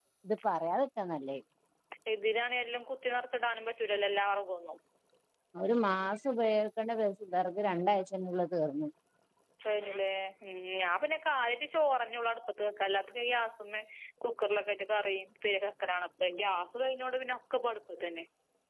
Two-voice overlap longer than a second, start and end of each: none

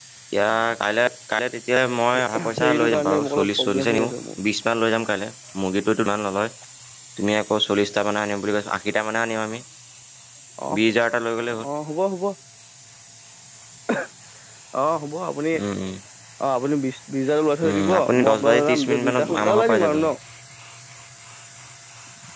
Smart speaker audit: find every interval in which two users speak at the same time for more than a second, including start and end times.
2.1-4.1, 17.7-20.1

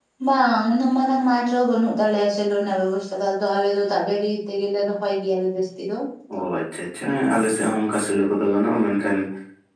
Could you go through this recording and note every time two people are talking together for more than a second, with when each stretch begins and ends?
none

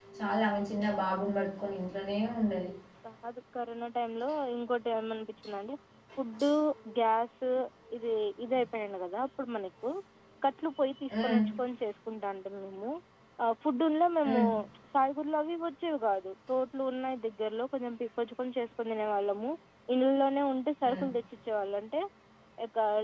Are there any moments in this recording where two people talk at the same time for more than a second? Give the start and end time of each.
none

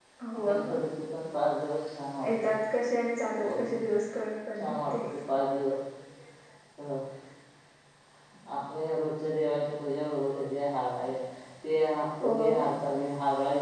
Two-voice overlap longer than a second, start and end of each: none

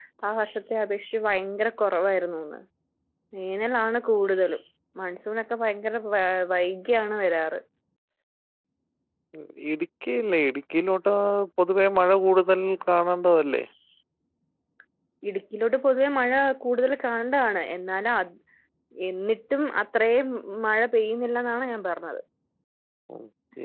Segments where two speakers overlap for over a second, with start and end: none

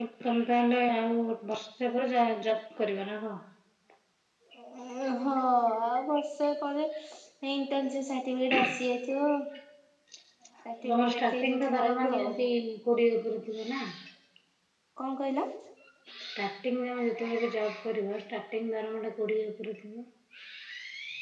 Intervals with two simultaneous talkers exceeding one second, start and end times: 10.8-12.2

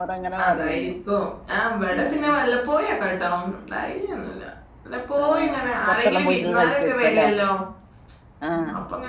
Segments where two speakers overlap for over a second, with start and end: 5.2-7.3

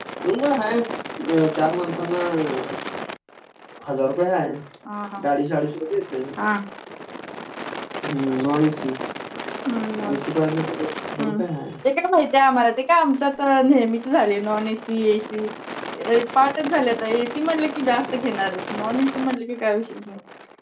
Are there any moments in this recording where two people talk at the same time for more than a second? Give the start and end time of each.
none

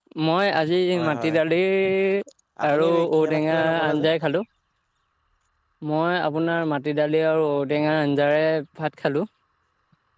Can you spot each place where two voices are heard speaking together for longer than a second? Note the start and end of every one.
2.7-4.1

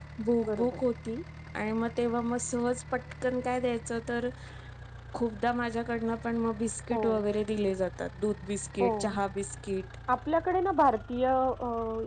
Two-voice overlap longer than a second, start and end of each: none

